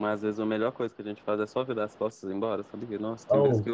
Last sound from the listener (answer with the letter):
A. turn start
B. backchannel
A